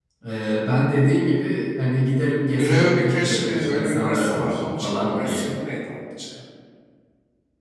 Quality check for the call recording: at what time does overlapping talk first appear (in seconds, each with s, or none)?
2.5 s